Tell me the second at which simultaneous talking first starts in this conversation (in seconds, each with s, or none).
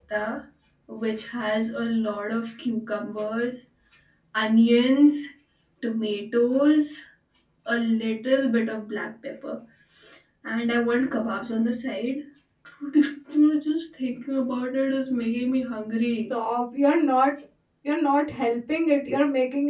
none